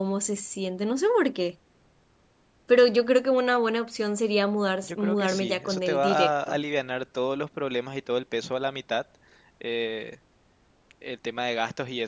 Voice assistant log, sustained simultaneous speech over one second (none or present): present